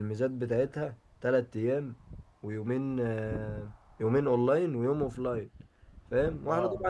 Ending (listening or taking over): listening